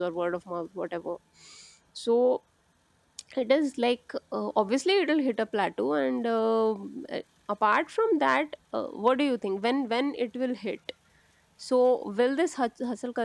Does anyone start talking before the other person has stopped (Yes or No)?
No